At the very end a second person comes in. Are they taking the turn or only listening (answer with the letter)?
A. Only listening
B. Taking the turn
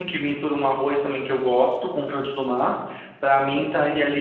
A